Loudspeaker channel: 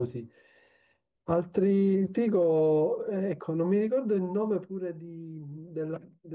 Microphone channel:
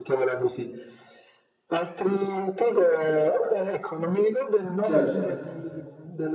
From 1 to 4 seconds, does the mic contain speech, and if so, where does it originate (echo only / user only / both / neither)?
echo only